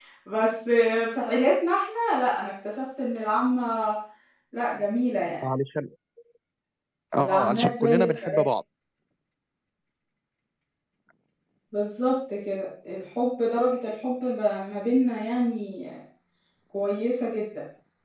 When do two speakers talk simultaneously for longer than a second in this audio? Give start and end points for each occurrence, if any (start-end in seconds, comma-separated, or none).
7.2-8.4